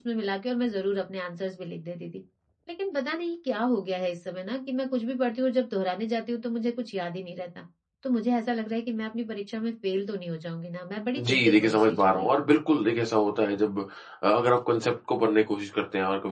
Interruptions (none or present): present